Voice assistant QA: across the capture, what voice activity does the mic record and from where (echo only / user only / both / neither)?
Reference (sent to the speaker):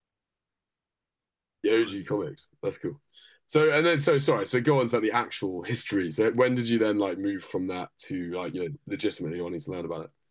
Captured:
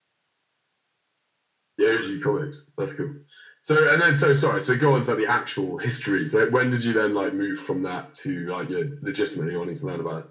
echo only